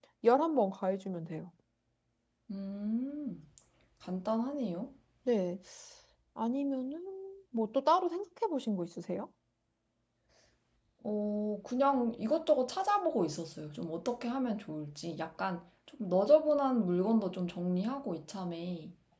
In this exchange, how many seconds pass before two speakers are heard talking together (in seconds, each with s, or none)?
none